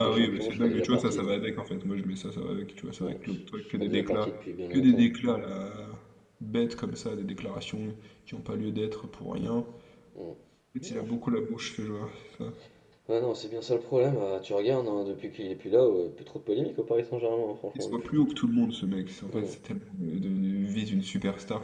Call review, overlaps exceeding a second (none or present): present